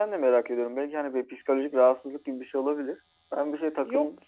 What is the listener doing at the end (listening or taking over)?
listening